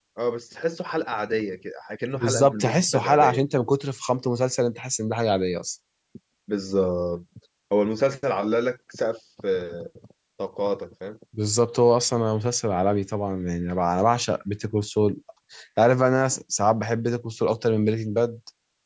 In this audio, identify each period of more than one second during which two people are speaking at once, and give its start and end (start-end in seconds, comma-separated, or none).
2.1-3.4